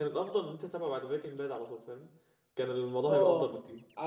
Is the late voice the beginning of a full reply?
Yes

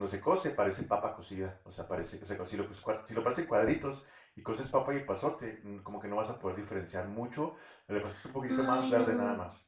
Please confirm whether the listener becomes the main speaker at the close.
Yes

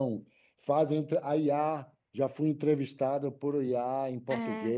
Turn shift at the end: Yes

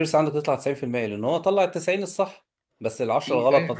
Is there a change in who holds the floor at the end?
No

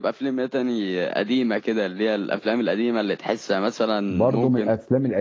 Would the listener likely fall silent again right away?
No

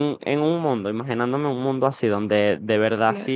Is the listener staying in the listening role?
Yes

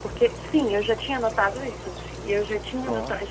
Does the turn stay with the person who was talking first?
Yes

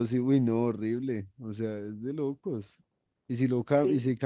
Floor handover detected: No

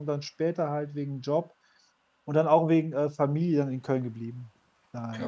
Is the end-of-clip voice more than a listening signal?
Yes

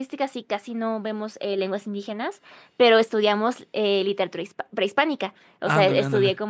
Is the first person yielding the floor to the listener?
No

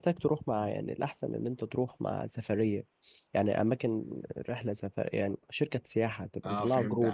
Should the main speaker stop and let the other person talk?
Yes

